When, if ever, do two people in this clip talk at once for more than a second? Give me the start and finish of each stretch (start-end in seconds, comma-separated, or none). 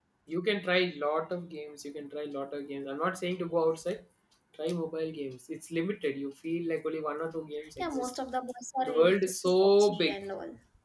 8.8-10.2